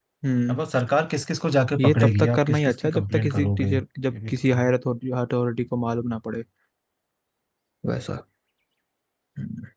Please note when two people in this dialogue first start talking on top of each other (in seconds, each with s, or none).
1.8 s